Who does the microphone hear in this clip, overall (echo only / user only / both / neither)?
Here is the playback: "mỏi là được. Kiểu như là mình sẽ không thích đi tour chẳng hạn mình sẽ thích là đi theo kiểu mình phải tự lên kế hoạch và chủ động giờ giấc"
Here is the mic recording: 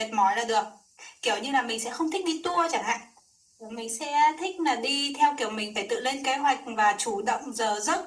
echo only